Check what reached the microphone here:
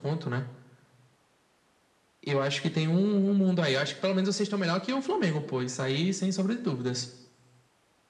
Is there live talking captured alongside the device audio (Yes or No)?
No